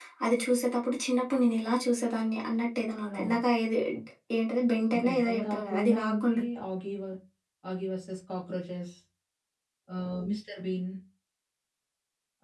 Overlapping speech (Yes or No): Yes